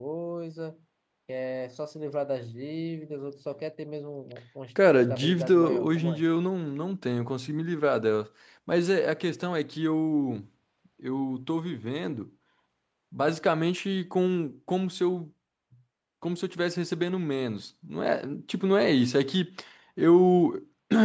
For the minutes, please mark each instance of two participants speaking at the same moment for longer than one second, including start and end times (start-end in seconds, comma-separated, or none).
4.9-6.2